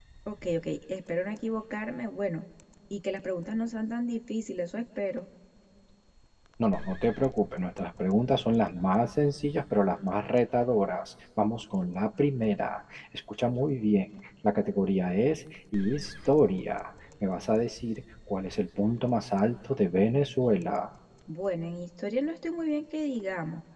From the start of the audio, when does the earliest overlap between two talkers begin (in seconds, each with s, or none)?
none